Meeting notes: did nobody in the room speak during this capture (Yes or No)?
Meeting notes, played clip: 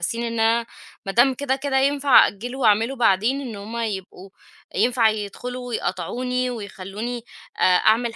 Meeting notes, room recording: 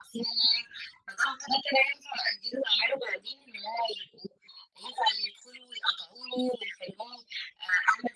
Yes